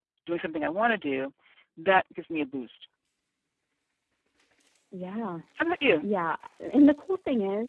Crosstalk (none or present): none